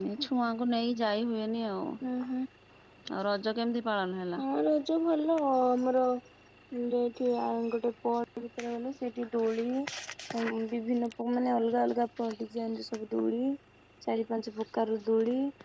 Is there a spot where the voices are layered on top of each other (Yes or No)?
No